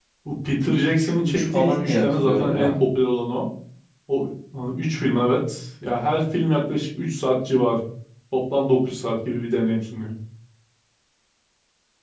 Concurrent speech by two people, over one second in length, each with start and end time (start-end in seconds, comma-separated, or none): 0.7-2.7